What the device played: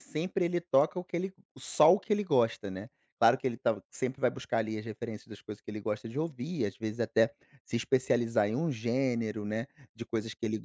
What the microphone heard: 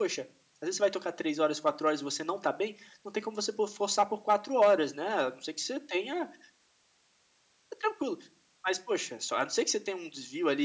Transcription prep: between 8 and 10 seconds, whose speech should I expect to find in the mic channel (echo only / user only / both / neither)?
user only